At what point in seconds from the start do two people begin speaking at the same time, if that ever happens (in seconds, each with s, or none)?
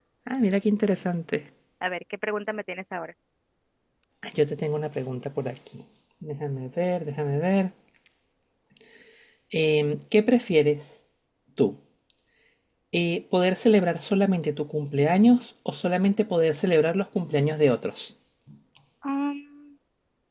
none